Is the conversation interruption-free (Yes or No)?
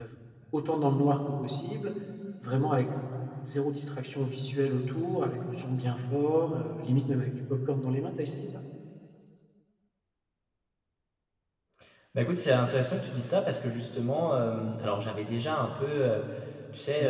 Yes